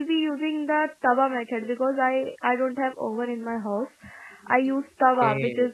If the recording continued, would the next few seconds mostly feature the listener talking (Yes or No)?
No